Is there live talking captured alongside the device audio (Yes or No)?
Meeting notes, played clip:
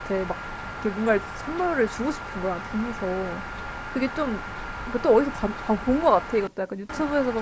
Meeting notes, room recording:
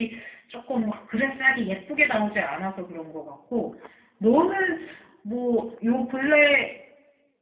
Yes